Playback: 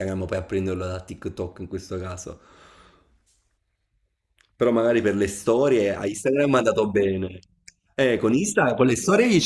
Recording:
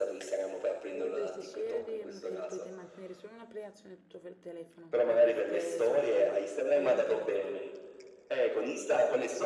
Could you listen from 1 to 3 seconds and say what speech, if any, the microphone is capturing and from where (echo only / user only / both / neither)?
both